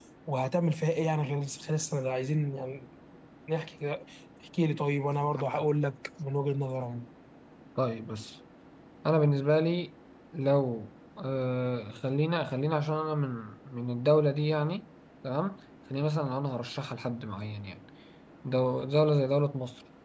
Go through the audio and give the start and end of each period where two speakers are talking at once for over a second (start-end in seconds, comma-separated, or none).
none